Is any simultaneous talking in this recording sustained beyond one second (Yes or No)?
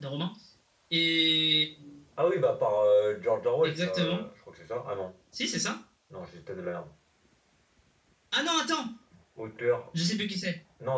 No